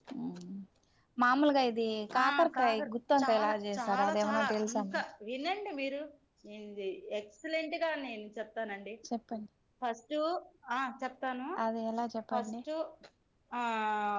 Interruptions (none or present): present